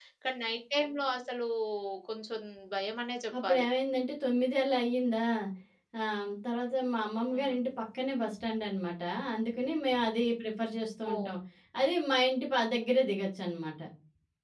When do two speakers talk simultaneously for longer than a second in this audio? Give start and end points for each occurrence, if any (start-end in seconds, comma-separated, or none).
none